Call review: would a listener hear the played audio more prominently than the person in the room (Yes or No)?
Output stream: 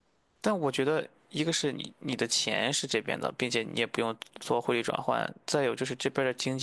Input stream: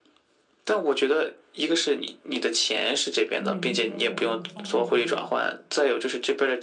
Yes